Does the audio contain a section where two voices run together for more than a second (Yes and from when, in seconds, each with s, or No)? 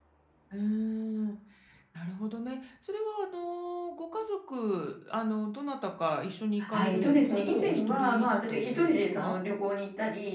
Yes, from 6.6 s